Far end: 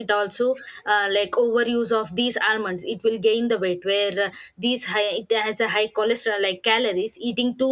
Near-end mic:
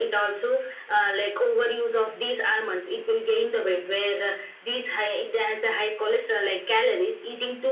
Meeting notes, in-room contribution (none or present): none